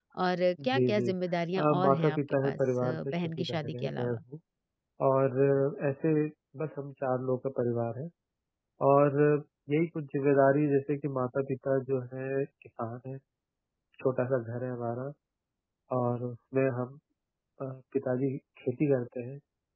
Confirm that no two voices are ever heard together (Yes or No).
No